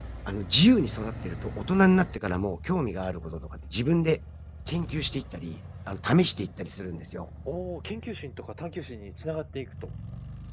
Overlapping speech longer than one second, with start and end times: none

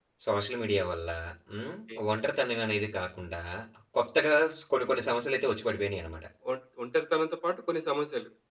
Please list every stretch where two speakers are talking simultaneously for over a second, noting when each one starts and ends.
none

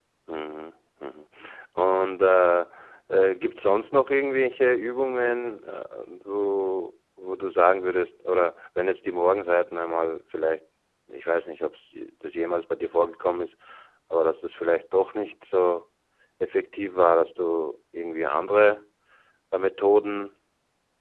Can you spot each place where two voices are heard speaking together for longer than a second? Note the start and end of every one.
none

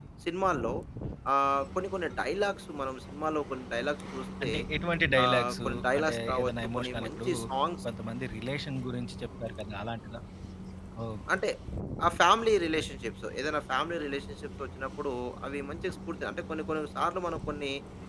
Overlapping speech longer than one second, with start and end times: 5.2-7.3

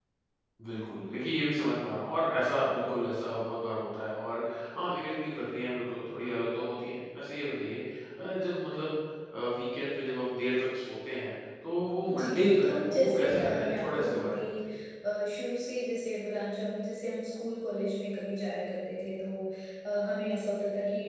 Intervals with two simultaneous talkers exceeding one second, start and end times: 12.2-14.5

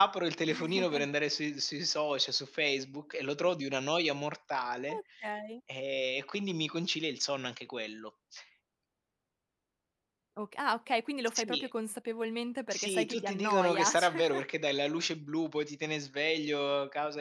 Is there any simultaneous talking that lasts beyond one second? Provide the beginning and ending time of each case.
12.7-14.2

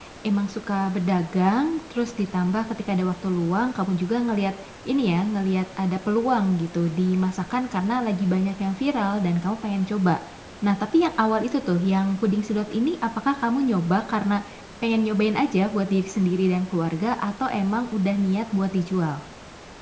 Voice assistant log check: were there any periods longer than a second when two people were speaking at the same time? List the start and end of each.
none

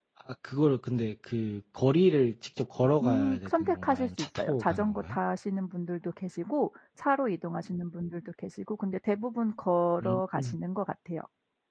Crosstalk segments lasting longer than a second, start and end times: 3.0-5.2

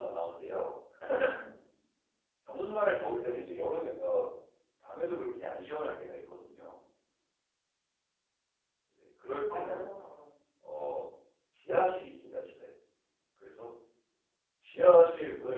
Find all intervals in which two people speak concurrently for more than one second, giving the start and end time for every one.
none

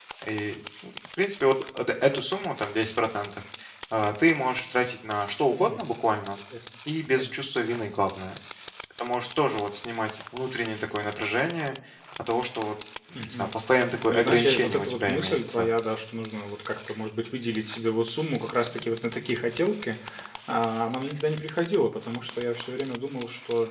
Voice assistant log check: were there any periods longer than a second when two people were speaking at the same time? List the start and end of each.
14.1-15.7

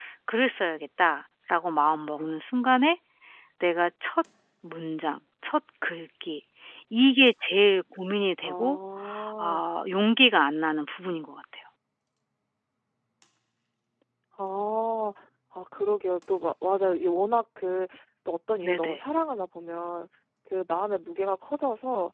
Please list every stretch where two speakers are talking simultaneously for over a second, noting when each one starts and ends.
none

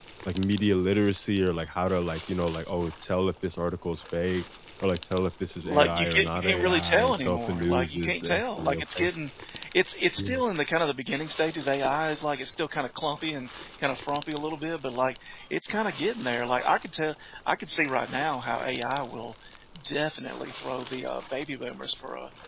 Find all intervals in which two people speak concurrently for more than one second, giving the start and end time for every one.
5.7-9.1

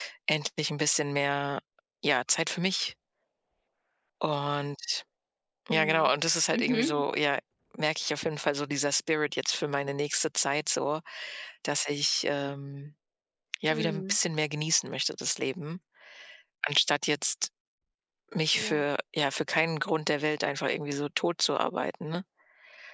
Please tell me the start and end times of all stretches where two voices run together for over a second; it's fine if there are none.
none

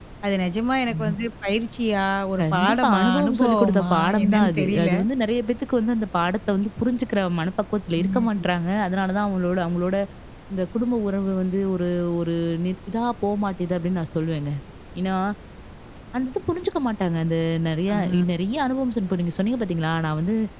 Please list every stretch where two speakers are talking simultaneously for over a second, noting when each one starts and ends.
2.4-4.9

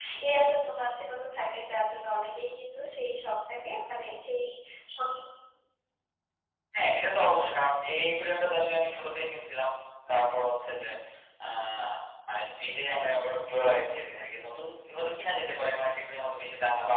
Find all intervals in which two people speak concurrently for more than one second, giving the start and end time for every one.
none

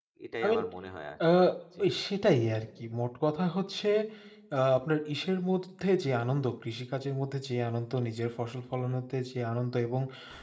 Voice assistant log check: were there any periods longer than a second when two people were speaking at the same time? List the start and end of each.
none

